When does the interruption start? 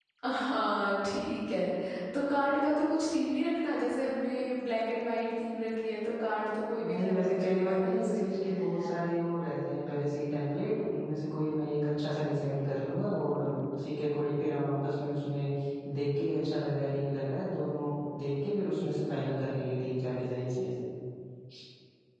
6.8 s

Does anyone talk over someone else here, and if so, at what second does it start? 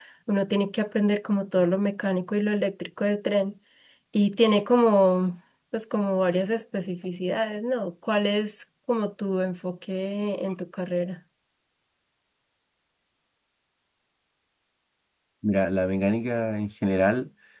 none

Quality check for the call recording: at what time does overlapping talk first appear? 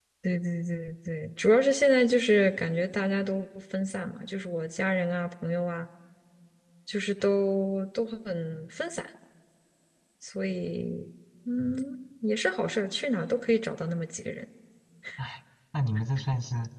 none

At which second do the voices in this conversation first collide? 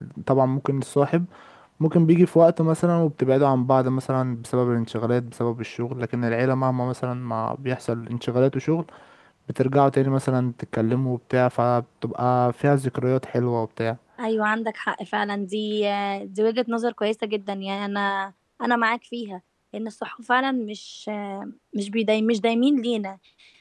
none

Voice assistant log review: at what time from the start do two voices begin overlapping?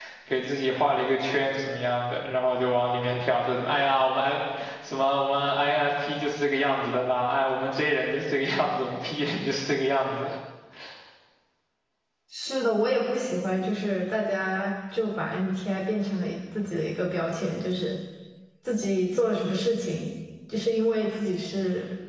none

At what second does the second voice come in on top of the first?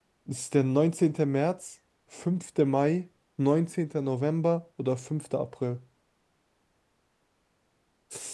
none

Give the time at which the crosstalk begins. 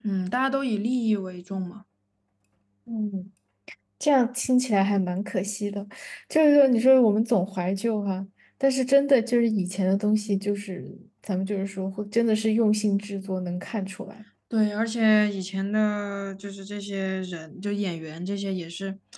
none

